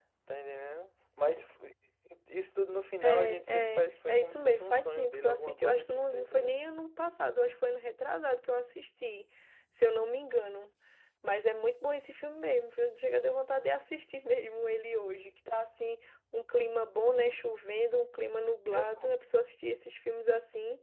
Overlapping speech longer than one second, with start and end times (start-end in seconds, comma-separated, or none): 3.0-6.6